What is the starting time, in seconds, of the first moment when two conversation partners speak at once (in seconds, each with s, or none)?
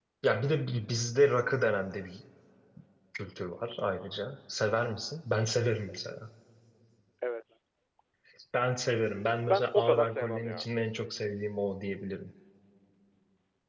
9.4 s